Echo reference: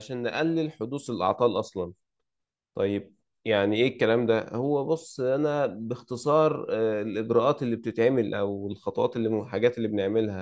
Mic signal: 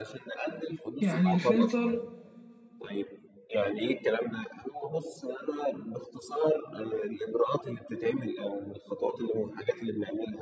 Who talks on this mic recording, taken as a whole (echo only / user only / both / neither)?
both